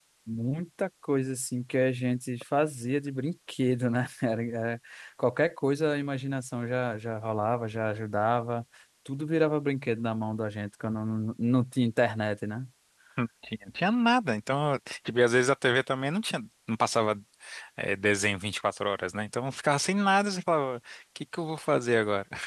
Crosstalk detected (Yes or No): No